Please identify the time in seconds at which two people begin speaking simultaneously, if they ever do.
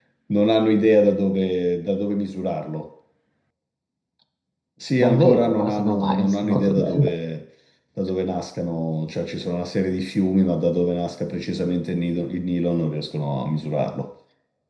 5.0 s

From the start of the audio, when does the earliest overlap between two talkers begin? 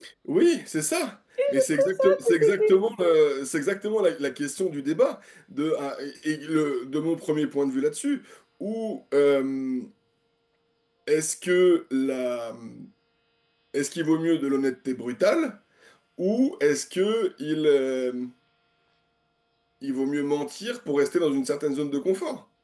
1.4 s

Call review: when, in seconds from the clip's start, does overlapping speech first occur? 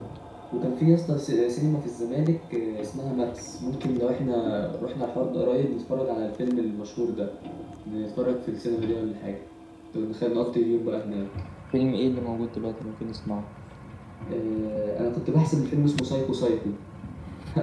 none

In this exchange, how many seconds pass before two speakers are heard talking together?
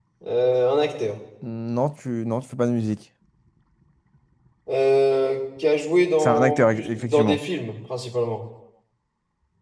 6.2 s

